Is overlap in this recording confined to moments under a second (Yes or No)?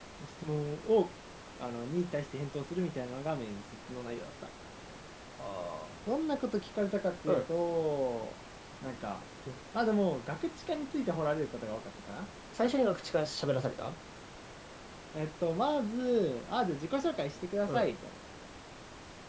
Yes